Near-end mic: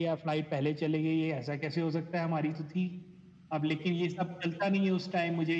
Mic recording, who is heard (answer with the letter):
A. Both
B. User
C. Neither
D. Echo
D